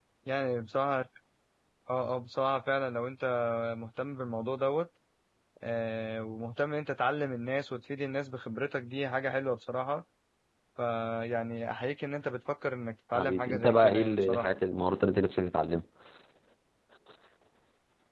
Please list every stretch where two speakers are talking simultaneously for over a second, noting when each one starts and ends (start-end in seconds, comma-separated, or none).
13.2-14.5